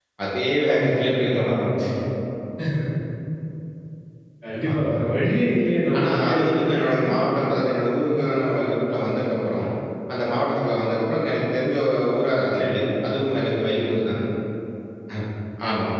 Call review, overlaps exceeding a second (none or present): none